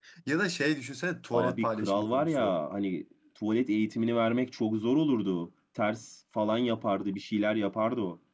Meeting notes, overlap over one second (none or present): present